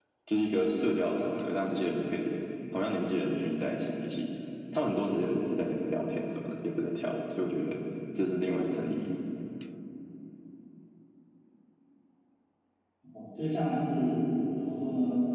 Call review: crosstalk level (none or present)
none